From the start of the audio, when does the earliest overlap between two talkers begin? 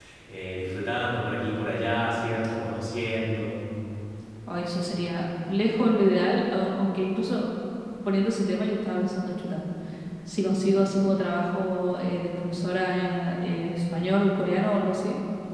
none

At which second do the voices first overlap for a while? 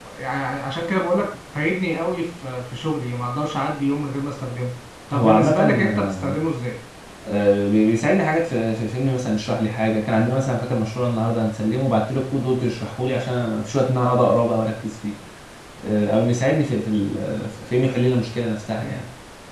5 s

